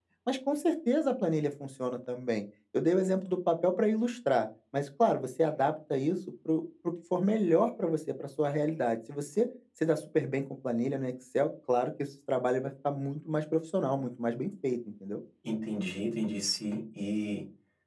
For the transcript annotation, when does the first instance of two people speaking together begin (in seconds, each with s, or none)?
none